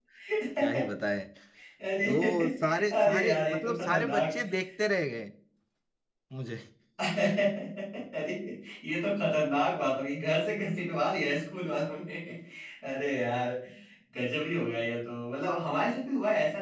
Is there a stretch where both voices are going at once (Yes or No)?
Yes